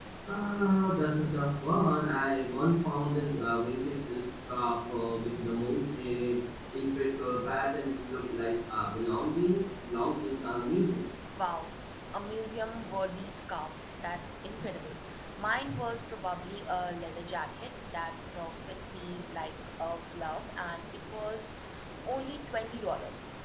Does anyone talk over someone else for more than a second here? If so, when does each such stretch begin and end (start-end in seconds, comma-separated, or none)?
none